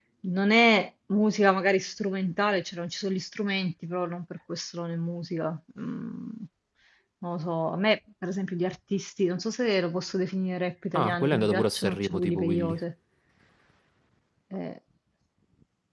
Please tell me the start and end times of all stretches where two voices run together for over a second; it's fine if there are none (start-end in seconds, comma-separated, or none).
10.9-12.8